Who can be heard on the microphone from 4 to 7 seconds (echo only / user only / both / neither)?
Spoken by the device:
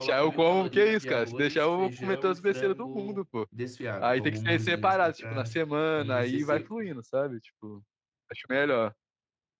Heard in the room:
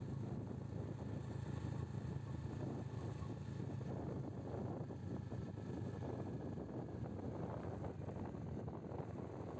neither